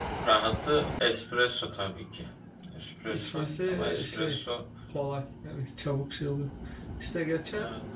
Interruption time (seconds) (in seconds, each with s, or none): 3.1 s